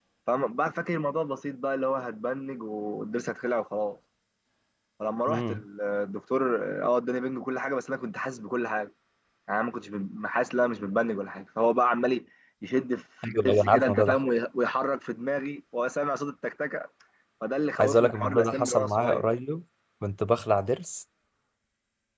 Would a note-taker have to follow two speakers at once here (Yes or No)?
Yes